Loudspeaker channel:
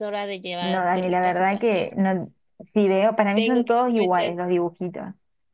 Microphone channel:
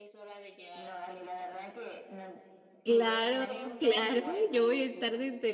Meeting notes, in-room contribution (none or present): present